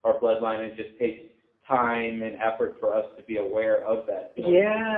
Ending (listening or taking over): taking over